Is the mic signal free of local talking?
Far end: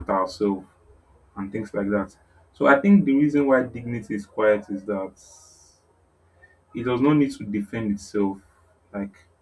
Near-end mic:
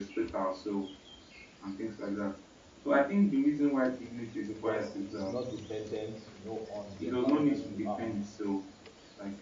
No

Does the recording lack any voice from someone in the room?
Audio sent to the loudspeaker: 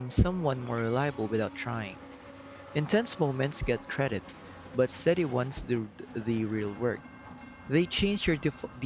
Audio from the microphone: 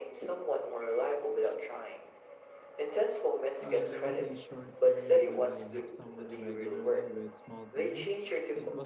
No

